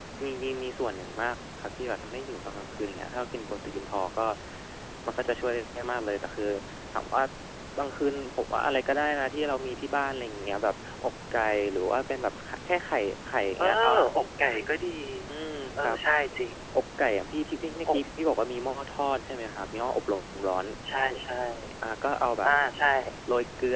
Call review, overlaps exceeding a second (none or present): none